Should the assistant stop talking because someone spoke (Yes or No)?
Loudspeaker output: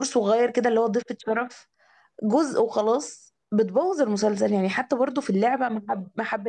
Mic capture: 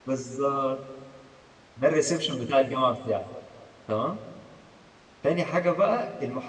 Yes